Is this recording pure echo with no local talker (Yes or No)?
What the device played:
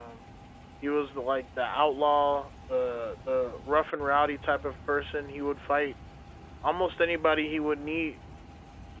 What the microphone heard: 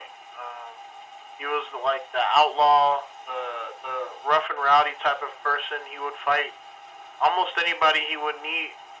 Yes